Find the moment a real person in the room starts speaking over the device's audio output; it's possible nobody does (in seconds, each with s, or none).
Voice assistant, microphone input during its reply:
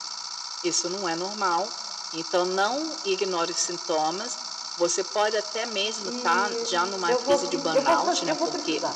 6.0 s